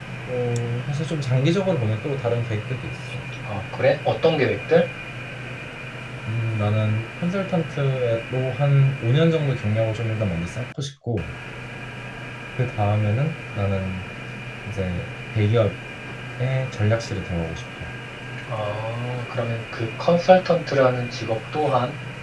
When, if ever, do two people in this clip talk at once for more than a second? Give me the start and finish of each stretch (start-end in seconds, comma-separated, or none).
none